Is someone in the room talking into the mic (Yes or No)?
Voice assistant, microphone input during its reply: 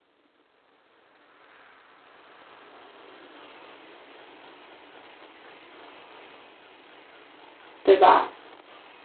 Yes